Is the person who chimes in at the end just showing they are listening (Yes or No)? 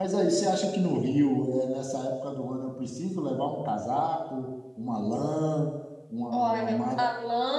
No